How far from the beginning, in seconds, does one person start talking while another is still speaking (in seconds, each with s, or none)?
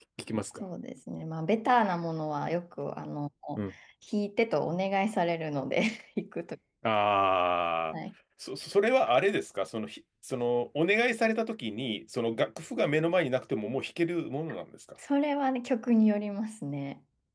none